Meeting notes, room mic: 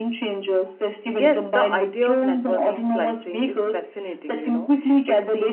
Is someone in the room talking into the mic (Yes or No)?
Yes